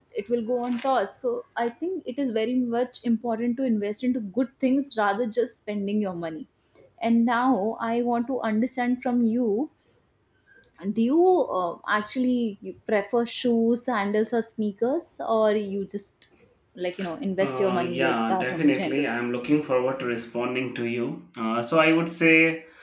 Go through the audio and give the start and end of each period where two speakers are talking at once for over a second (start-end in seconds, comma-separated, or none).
17.4-19.1